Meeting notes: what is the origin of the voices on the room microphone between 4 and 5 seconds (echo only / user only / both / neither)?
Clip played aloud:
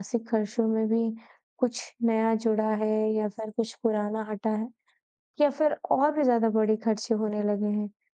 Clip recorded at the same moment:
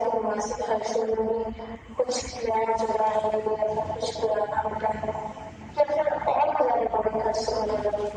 echo only